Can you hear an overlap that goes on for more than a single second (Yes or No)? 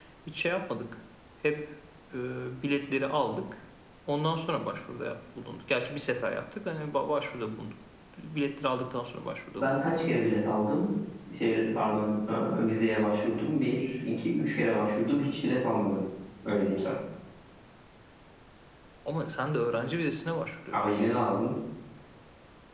No